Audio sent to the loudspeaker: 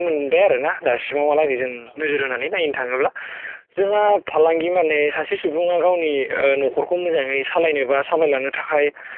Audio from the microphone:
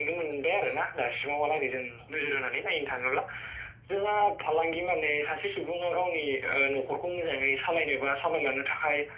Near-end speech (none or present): none